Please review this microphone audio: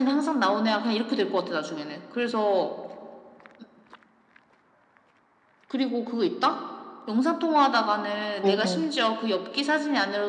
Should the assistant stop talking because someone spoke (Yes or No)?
Yes